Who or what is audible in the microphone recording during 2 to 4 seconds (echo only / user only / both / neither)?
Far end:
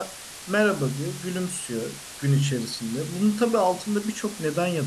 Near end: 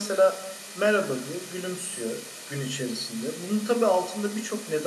echo only